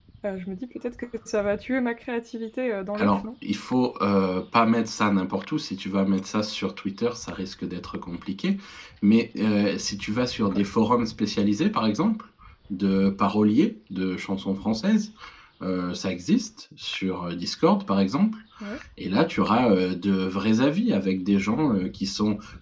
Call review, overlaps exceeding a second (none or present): none